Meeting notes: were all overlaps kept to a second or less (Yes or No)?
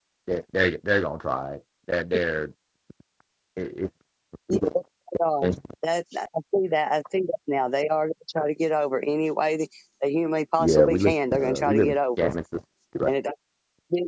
No